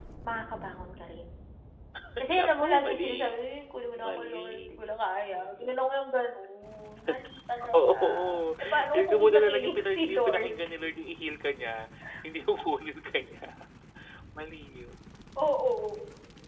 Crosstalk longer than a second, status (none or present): present